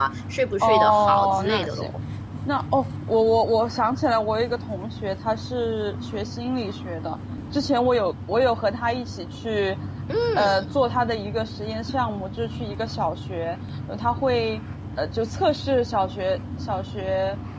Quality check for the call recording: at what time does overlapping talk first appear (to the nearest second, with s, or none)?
1 s